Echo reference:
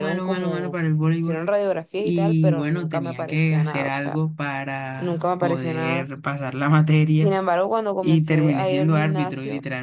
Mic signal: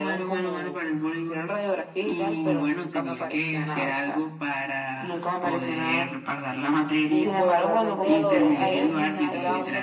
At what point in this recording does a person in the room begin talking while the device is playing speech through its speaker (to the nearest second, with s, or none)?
7 s